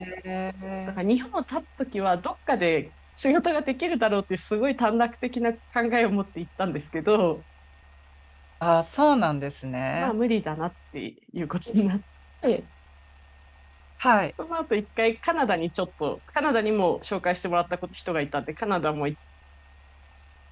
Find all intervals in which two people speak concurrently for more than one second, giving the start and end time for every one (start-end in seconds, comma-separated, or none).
none